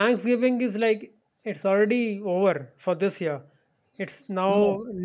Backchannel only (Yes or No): Yes